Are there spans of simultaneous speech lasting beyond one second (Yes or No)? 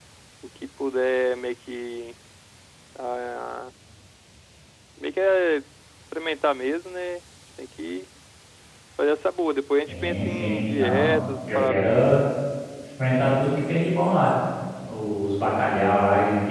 Yes